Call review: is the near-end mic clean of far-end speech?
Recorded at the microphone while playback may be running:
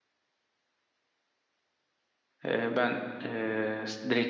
Yes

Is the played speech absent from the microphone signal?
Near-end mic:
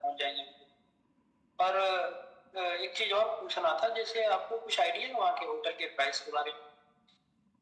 No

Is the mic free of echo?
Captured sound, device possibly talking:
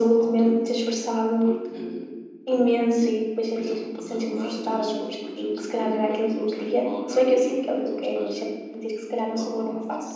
No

